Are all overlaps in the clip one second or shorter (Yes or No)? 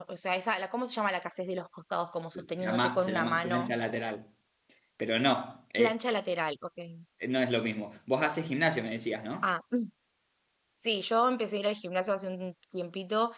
No